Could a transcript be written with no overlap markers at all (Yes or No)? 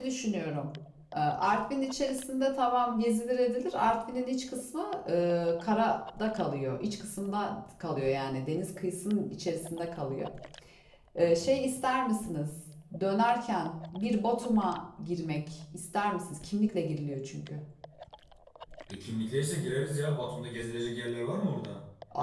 Yes